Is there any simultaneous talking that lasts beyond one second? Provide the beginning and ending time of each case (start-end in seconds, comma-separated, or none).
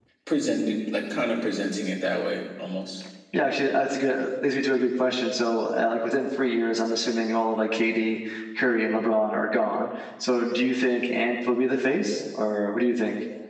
none